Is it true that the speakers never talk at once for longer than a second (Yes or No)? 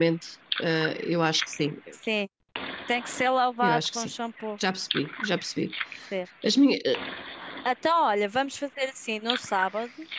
Yes